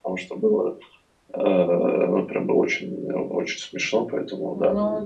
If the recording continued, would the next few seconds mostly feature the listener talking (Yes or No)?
Yes